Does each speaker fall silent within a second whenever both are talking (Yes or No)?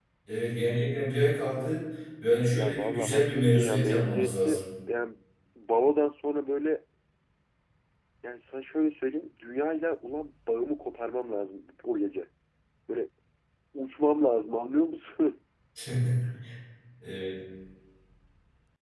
No